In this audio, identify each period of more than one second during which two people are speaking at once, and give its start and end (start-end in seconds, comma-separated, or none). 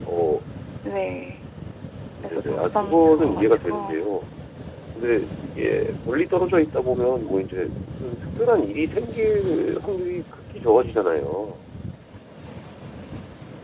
2.2-3.8